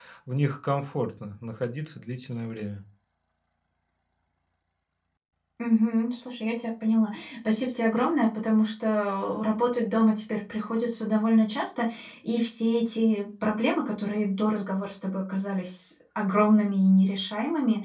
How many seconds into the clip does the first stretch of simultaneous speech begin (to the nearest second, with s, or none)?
none